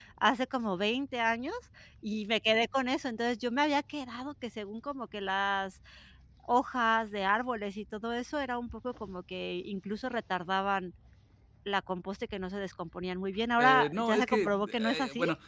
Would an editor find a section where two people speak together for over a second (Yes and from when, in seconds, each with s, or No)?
Yes, from 13.6 s